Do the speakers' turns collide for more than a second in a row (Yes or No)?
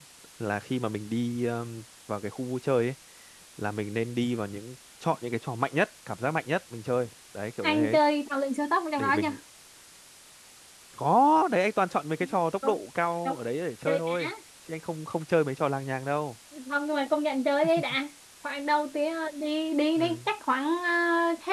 No